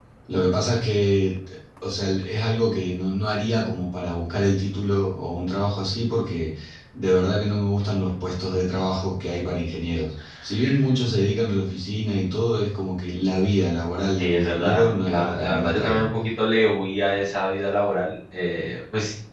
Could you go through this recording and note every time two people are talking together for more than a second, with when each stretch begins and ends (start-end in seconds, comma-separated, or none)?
14.2-16.0